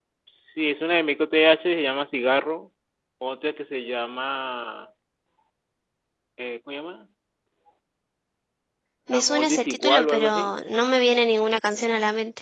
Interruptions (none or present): present